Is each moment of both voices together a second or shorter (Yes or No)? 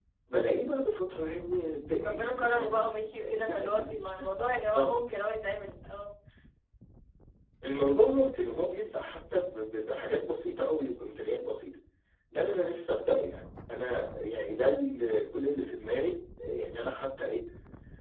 No